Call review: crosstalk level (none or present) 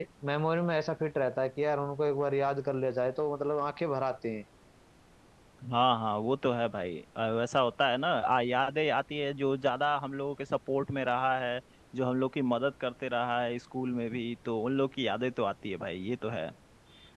none